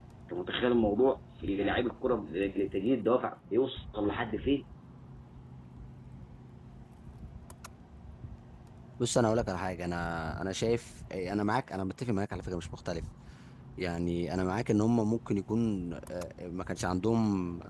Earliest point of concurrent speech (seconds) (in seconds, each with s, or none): none